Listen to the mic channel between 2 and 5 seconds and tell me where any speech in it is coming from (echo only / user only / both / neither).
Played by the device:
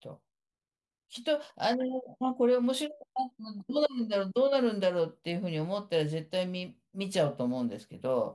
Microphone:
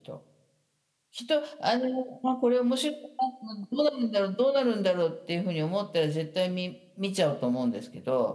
echo only